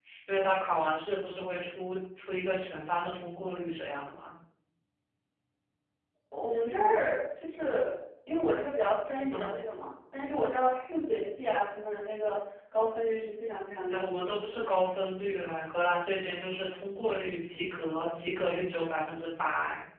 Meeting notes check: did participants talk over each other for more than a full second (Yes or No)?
No